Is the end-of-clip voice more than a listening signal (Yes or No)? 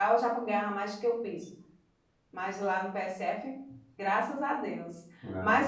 No